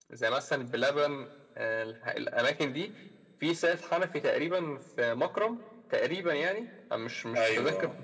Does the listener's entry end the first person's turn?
No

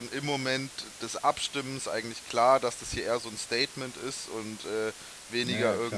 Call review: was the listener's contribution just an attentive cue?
Yes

